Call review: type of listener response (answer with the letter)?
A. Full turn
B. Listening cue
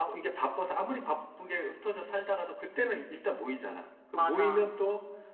B